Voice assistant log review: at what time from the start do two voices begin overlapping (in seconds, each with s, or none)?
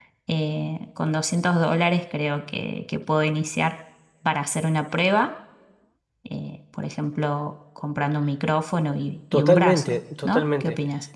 9.3 s